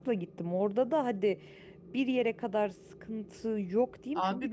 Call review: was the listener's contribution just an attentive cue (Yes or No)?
No